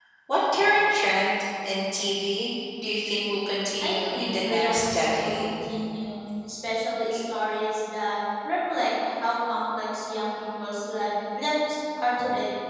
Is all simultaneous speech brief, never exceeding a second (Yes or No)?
No